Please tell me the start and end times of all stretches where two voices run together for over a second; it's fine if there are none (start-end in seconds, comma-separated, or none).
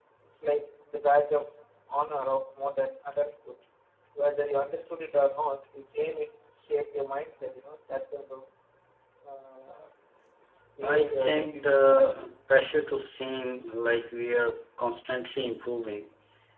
10.8-12.2